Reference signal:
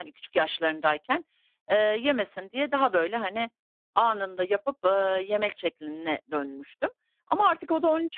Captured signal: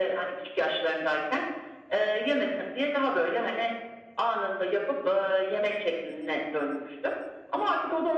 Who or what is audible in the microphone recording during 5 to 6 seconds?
echo only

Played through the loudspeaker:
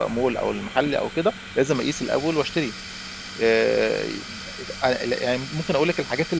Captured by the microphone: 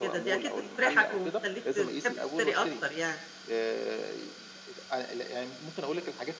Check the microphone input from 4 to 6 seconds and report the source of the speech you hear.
echo only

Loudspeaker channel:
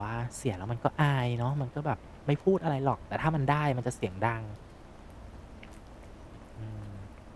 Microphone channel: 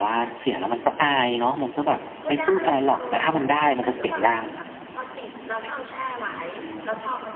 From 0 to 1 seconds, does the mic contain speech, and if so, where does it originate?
echo only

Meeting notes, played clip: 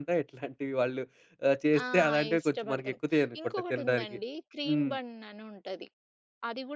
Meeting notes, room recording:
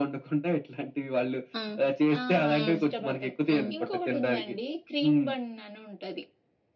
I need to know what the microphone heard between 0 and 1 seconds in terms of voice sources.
echo only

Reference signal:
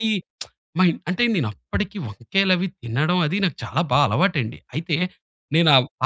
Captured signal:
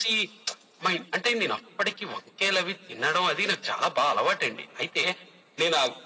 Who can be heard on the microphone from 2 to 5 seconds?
echo only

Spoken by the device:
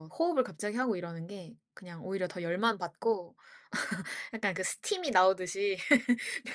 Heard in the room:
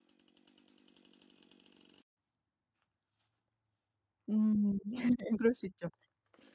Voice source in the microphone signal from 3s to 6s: user only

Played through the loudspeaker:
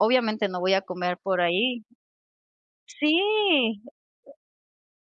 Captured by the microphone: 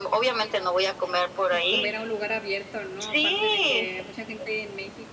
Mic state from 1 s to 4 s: both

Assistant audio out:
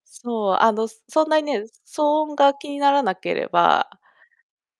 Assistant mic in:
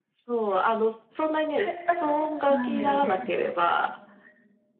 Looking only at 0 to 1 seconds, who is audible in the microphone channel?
echo only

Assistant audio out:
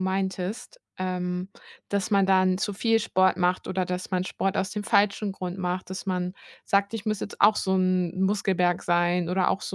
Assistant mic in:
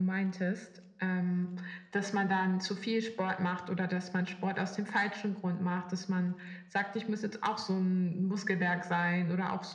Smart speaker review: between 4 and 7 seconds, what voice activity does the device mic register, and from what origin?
echo only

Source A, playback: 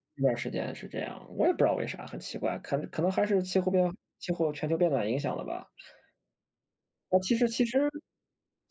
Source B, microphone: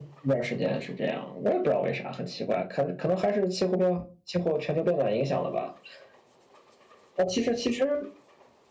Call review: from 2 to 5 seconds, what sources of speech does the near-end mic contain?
echo only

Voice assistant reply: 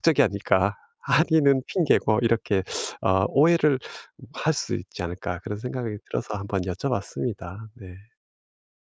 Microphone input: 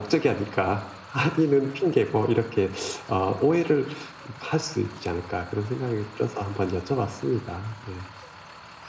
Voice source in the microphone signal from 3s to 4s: echo only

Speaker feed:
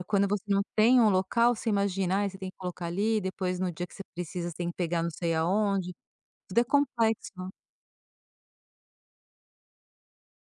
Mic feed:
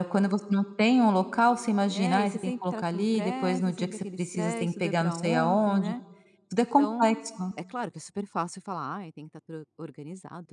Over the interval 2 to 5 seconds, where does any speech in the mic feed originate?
both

